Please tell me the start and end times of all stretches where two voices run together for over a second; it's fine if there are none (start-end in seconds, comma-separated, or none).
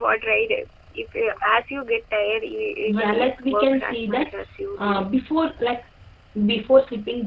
2.9-4.3